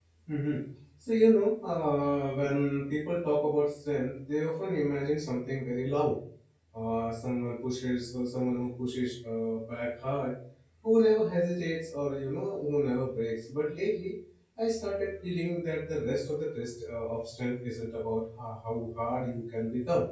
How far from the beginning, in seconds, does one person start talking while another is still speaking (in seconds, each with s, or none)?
none